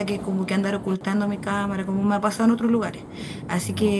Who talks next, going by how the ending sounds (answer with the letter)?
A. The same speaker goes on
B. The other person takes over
A